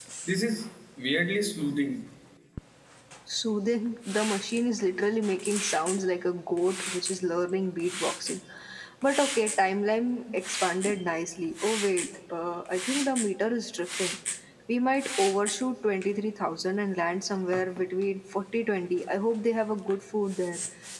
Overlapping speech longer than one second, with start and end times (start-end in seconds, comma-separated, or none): none